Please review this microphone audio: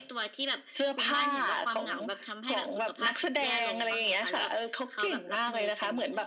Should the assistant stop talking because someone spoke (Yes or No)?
No